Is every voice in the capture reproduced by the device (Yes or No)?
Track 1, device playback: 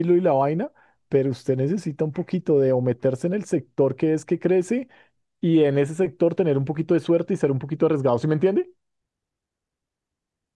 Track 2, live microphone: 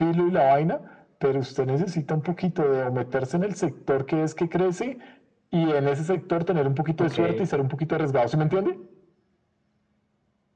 No